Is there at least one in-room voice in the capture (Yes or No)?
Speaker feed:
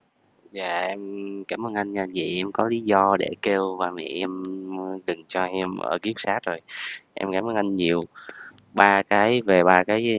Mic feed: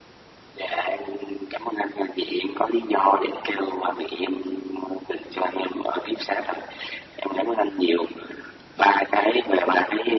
No